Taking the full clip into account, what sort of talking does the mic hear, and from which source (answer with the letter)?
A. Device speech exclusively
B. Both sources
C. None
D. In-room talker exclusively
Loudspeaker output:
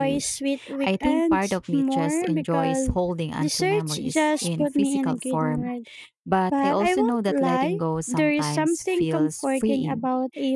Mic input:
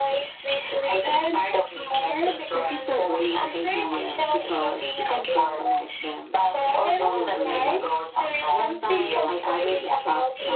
B